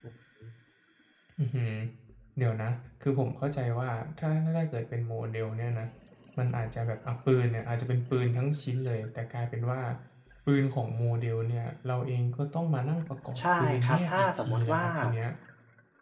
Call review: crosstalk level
present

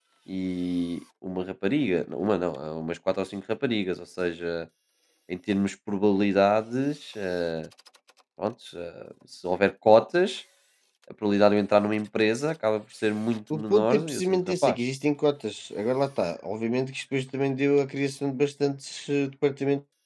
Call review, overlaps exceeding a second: present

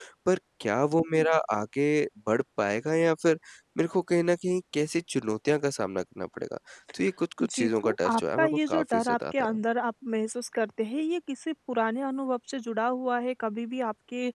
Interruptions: present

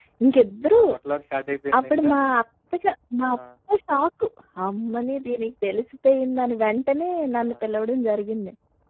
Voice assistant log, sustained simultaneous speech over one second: none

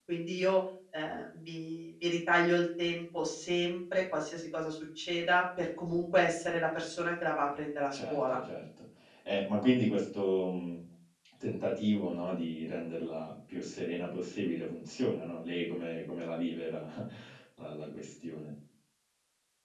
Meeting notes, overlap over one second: none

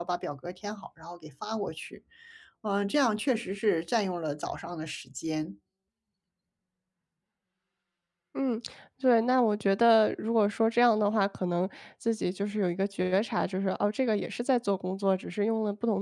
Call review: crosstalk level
none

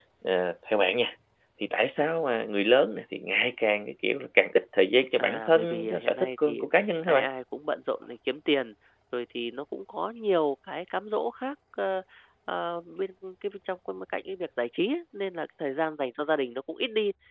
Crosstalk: present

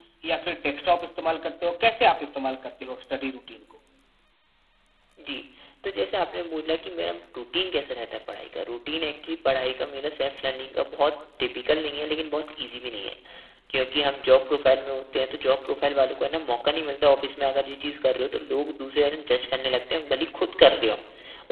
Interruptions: none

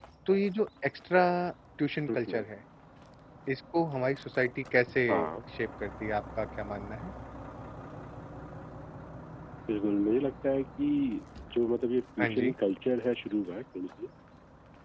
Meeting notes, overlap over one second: none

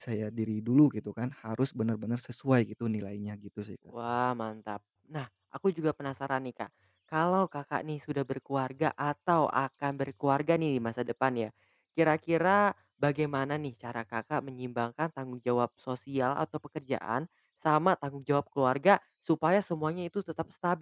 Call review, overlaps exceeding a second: none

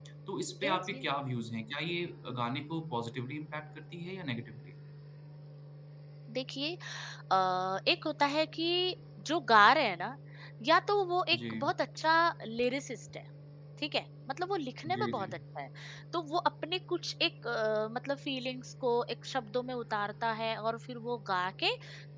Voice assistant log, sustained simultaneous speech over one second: none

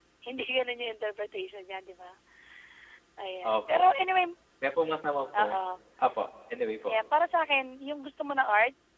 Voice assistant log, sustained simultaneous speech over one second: none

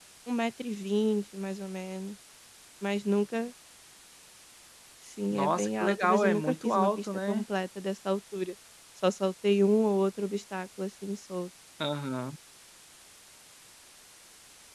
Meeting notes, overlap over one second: present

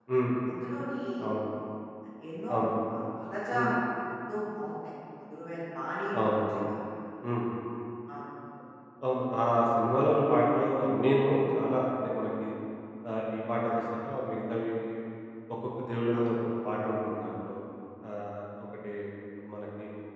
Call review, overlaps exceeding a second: none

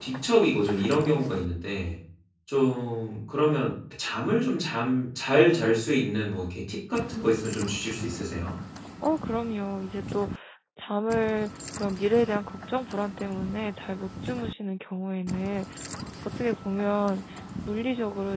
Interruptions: none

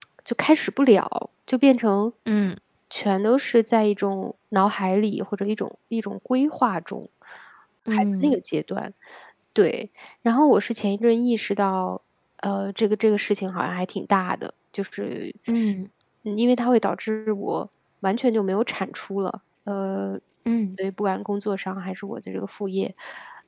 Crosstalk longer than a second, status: none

